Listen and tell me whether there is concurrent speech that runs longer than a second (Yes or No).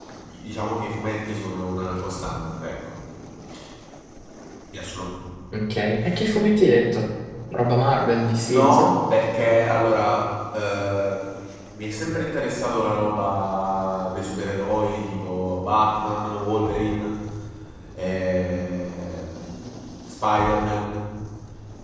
No